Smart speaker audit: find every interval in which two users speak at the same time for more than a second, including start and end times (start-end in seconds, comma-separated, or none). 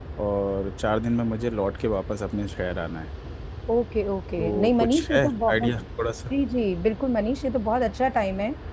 4.4-5.7